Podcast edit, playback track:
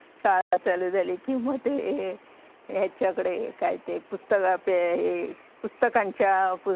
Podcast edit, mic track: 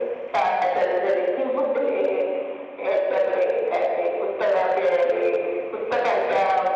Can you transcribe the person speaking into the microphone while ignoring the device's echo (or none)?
none